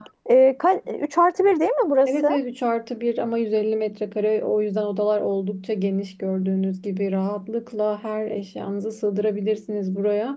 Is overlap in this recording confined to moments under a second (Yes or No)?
Yes